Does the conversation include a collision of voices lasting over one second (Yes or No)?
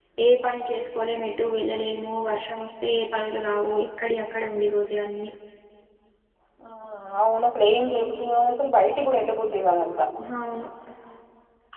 No